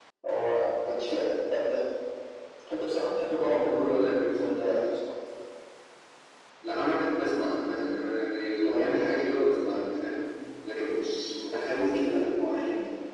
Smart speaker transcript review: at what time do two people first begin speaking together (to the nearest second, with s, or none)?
3 s